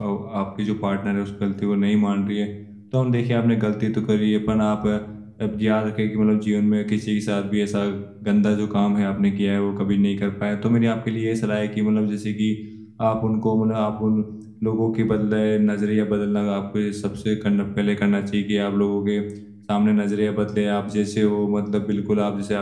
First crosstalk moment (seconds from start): none

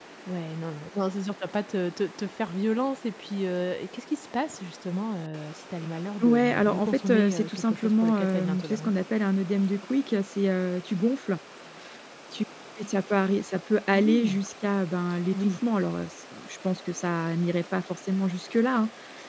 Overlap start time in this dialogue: 6.2 s

